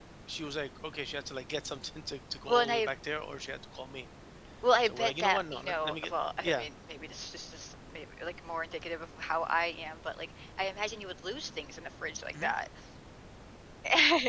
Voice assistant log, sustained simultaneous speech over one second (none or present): present